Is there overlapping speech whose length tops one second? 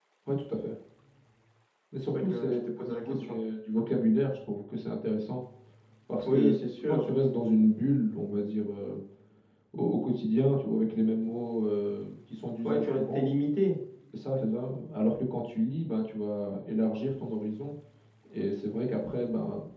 Yes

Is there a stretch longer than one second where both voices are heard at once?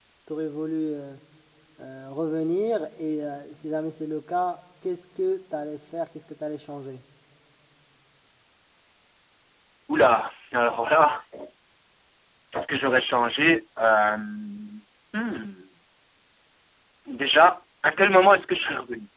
No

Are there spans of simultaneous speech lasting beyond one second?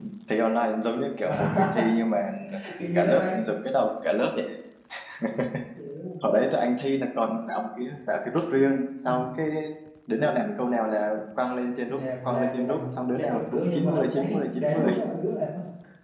Yes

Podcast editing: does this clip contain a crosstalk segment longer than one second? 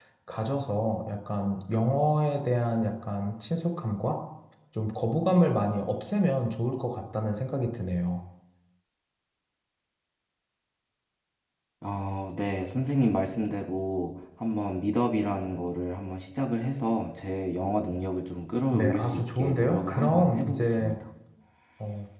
Yes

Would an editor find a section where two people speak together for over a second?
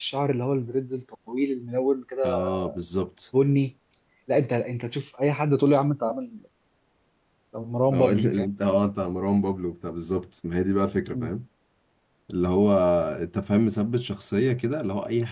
No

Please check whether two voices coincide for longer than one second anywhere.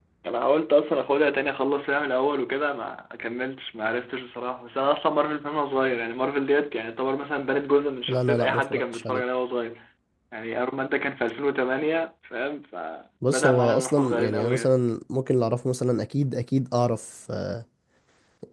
Yes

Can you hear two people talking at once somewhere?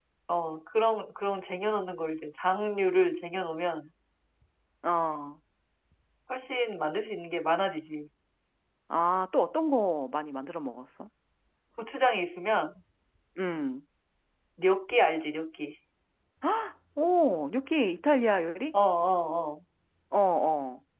No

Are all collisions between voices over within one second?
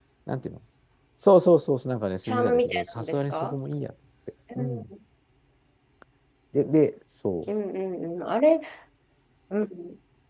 No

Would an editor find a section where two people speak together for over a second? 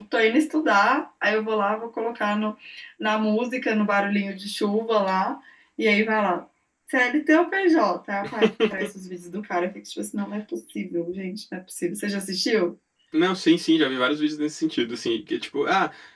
No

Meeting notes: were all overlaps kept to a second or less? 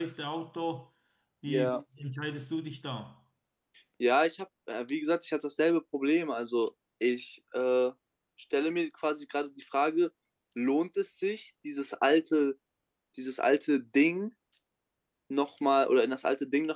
Yes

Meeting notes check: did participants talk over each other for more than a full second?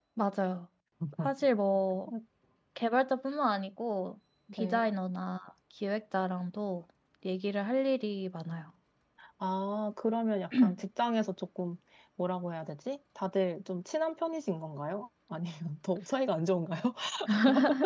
No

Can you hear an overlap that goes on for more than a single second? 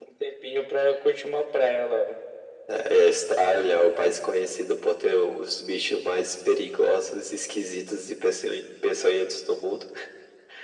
No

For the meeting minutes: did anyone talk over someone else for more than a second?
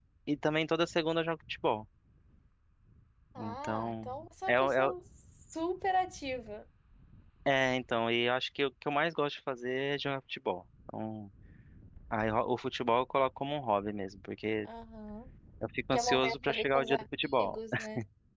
Yes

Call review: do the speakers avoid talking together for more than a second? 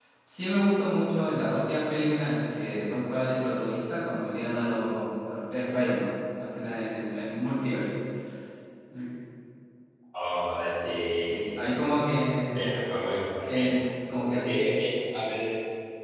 Yes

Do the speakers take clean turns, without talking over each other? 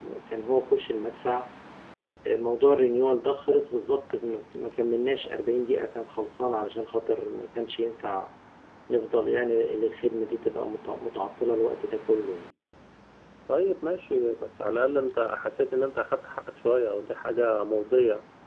Yes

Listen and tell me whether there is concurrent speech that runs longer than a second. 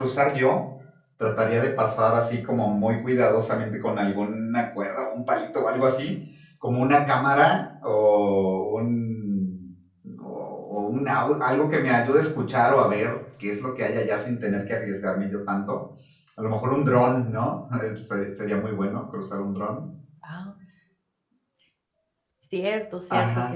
No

